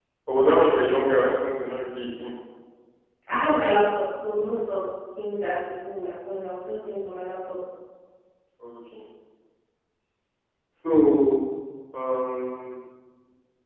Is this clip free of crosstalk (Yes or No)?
Yes